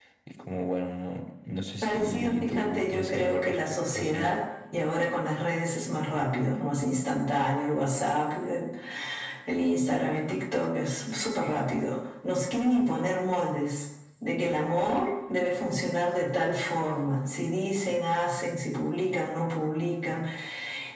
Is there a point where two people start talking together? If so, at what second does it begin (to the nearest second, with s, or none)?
2 s